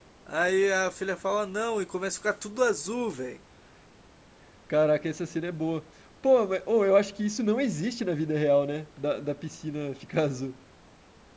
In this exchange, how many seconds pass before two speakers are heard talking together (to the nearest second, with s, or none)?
none